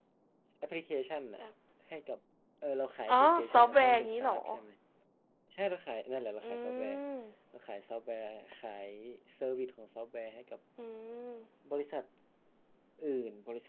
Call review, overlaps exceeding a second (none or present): present